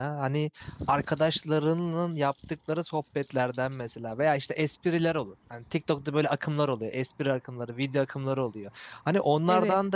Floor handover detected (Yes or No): No